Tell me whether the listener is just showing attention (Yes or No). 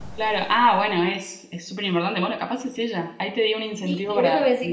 No